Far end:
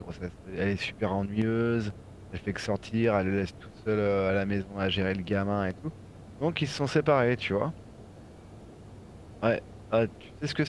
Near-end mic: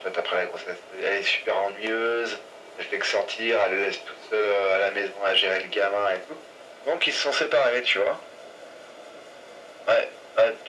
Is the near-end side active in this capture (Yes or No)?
No